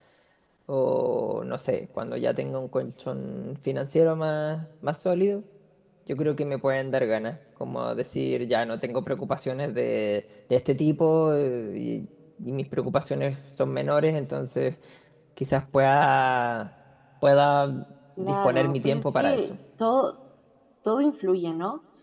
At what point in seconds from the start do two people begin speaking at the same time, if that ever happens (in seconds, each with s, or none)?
18.2 s